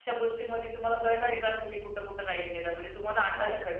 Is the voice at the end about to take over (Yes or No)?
No